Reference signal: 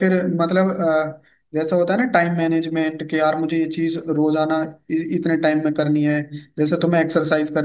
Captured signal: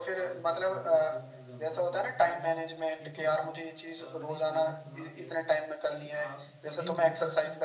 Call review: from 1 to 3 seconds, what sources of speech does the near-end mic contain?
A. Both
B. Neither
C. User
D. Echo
A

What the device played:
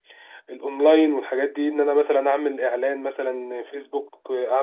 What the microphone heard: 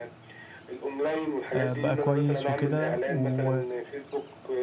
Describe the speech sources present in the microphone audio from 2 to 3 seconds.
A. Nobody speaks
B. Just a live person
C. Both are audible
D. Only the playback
C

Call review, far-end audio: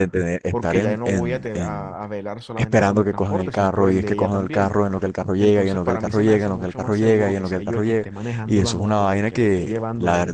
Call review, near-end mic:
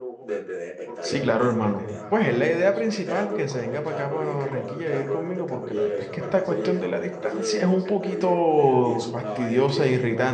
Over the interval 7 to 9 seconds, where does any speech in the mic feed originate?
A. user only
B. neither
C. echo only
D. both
D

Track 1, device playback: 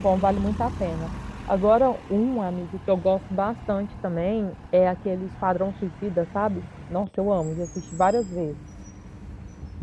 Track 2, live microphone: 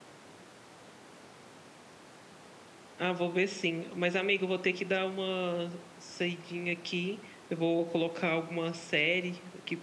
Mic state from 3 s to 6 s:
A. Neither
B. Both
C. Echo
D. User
D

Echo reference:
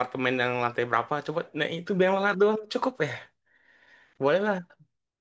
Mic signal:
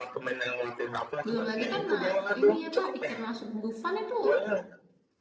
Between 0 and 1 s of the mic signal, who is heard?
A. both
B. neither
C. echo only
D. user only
C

